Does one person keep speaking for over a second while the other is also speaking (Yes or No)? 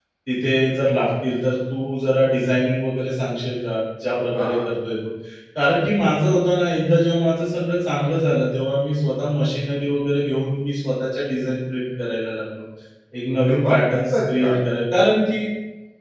Yes